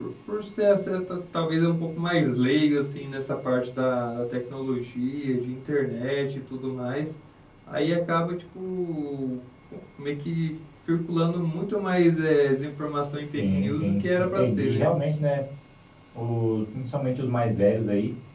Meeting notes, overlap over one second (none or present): present